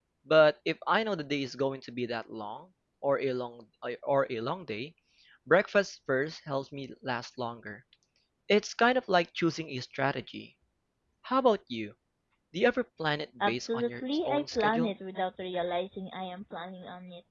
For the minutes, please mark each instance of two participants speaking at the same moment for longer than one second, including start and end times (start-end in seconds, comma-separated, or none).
13.5-14.9